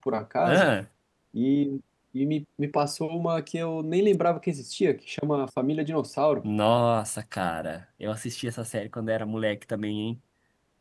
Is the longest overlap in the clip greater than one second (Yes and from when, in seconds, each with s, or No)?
No